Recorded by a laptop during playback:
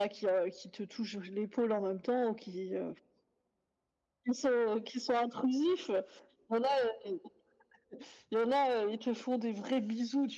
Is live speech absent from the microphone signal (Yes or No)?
Yes